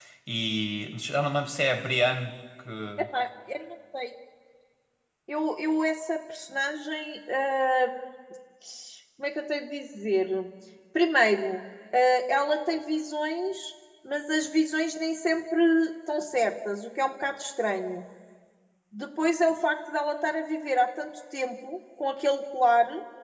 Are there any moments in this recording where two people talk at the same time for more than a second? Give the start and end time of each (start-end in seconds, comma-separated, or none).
none